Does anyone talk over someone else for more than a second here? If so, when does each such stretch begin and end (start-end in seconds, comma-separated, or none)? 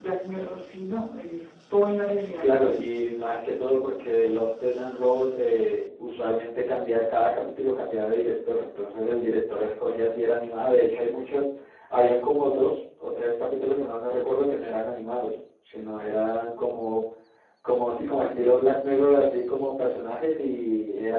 none